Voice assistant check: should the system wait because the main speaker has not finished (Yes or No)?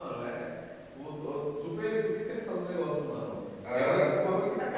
Yes